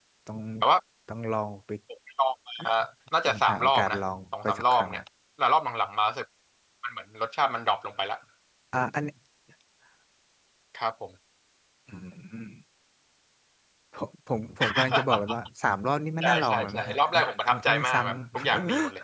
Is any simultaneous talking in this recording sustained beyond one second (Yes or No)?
Yes